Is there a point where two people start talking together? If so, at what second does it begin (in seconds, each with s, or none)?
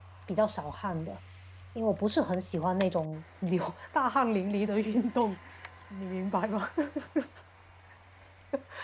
none